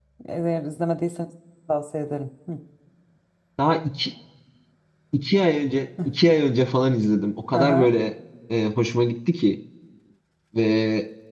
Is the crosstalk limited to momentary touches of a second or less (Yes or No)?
Yes